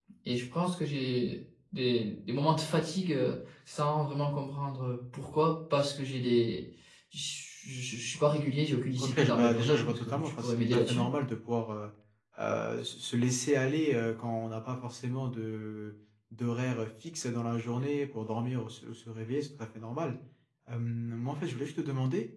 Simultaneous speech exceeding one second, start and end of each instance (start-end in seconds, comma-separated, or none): 9.0-11.1